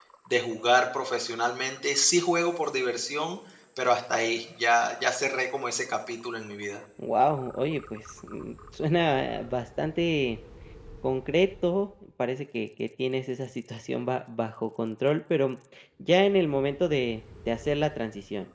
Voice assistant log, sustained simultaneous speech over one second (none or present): none